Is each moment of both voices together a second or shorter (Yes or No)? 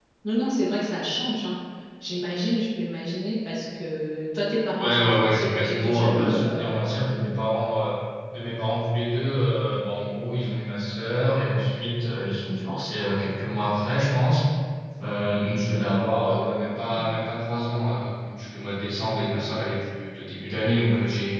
No